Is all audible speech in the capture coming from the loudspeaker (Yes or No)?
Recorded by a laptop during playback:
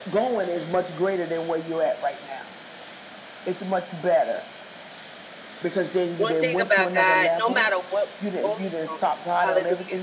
No